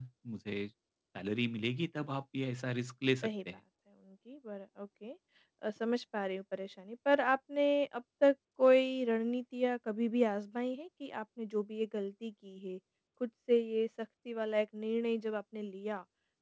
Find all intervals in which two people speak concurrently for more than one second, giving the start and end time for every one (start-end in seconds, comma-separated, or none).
none